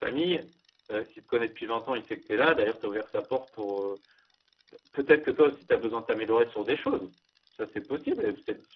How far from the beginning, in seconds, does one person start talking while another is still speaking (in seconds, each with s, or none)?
none